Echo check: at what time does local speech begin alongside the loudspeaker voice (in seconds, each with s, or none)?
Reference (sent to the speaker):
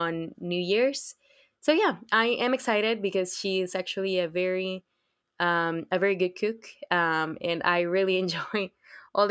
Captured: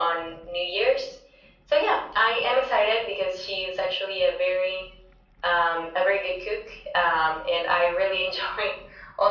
none